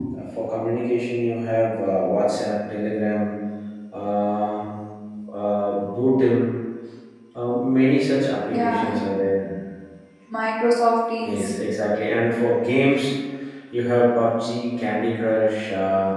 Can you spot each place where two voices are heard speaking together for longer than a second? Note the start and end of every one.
none

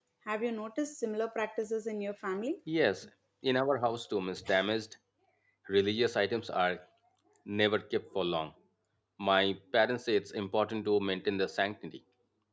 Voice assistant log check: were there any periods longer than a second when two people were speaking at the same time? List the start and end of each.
none

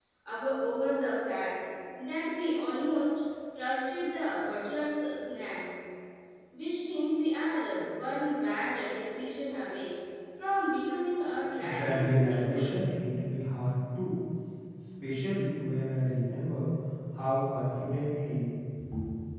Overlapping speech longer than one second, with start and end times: 11.6-12.8

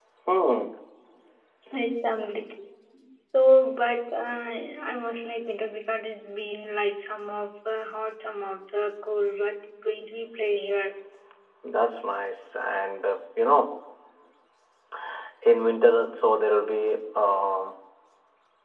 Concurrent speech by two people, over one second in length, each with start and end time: none

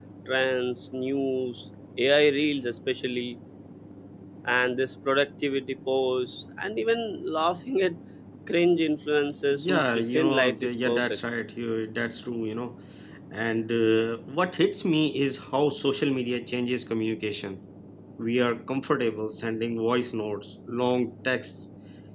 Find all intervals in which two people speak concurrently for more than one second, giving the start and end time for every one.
9.5-11.2

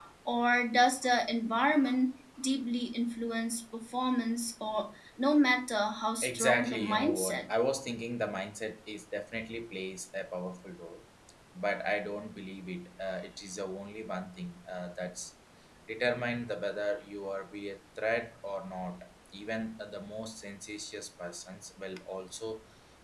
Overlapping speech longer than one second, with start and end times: 6.2-7.5

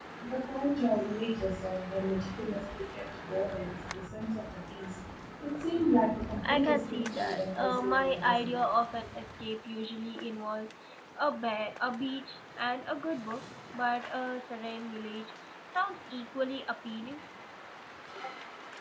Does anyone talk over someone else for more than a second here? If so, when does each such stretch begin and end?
6.4-8.5

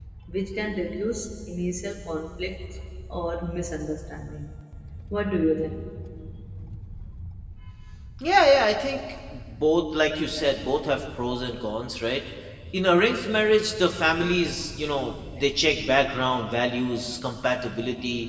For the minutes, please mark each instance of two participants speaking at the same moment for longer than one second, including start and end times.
none

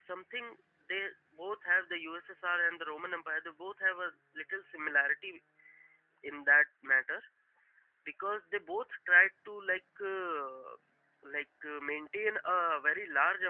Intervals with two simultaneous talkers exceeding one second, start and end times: none

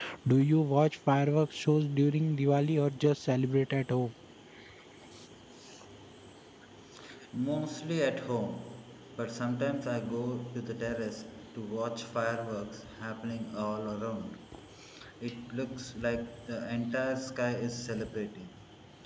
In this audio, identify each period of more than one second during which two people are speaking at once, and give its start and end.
none

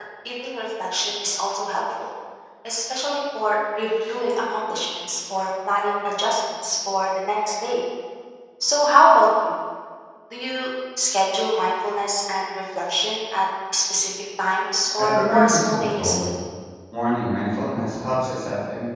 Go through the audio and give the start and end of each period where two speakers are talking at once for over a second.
15.0-16.3

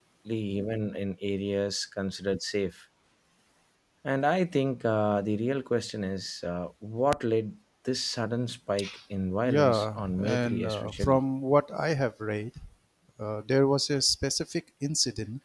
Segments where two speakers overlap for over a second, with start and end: 9.4-11.2

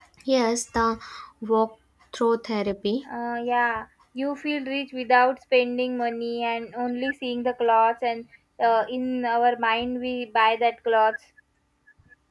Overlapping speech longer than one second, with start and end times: none

